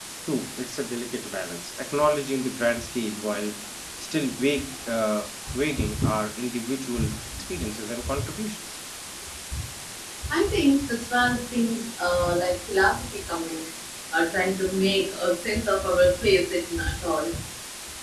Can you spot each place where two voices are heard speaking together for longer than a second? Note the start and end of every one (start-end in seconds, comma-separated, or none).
none